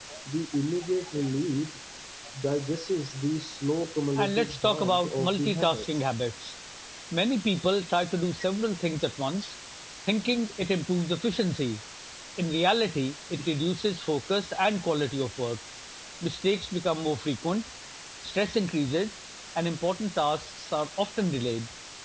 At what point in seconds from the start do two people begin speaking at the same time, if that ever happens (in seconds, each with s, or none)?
4.2 s